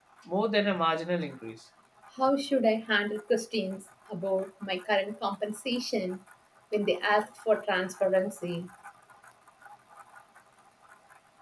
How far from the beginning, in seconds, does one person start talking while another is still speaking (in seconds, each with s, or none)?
none